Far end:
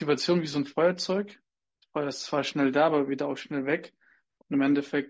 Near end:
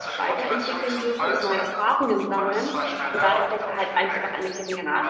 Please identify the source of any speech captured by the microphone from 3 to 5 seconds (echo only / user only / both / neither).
both